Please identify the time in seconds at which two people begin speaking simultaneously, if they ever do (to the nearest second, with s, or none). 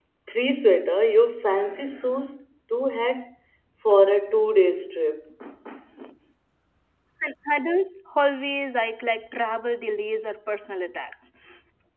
none